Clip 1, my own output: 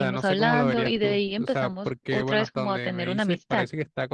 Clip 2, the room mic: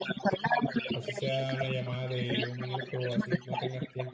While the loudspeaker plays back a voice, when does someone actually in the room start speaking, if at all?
0.9 s

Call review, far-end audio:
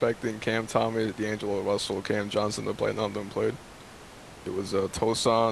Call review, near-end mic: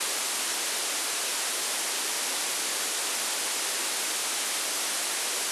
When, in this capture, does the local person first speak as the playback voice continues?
none

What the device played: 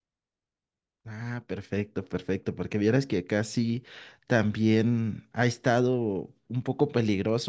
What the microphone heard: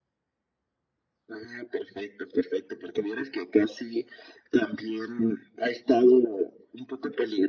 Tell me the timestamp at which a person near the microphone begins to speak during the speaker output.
none

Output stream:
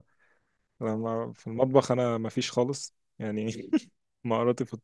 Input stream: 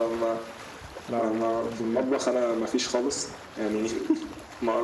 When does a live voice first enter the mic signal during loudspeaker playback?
1.1 s

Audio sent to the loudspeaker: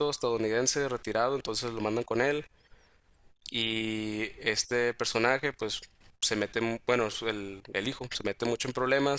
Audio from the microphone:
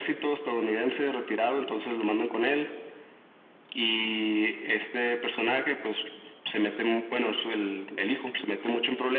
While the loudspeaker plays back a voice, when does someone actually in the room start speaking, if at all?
none

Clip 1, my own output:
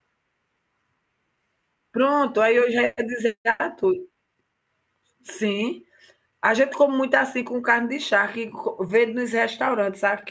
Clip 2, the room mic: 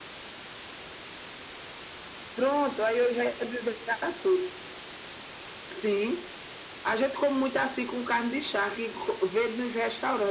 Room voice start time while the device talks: none

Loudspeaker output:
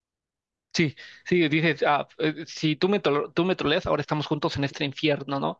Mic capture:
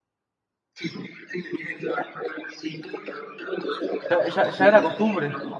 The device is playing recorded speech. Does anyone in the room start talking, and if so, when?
4.1 s

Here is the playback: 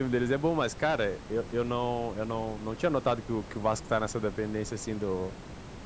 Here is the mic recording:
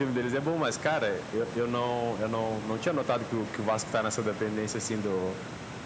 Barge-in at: none

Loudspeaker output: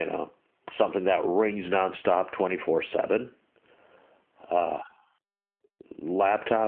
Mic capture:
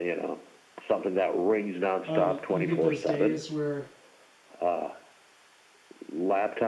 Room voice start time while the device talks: 2.0 s

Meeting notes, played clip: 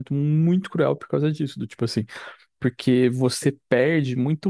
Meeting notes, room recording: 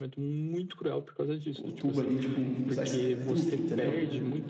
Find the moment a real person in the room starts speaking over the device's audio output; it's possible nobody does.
1.5 s

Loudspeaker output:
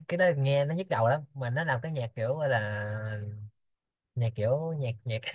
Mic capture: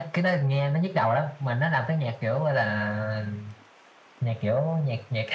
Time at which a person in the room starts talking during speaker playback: none

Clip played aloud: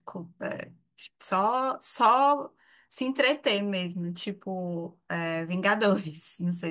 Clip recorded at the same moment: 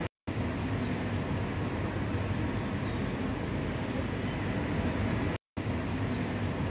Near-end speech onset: none

